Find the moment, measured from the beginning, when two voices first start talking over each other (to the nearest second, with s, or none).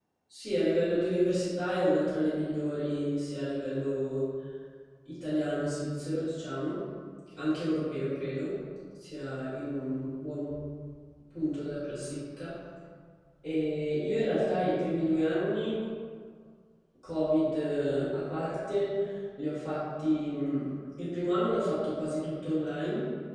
none